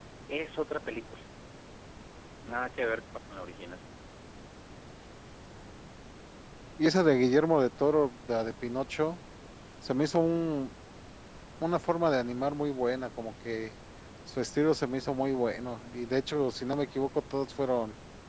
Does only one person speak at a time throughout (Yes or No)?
Yes